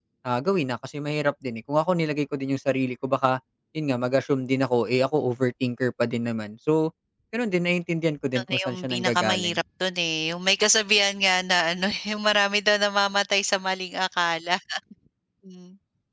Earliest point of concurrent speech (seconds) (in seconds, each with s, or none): 8.3 s